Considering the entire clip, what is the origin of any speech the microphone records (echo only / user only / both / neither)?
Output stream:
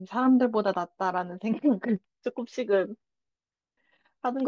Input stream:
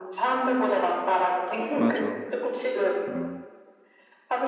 both